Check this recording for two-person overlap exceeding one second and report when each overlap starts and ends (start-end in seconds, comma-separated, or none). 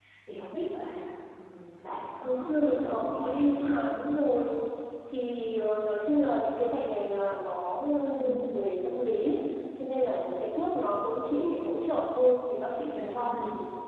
2.2-3.8